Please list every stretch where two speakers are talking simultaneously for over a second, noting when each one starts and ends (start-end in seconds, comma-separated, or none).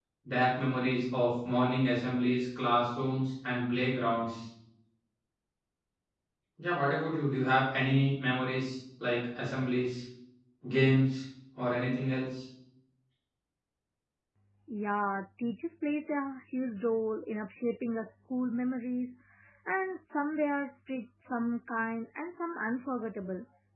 none